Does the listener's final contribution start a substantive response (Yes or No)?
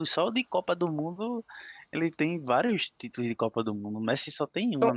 Yes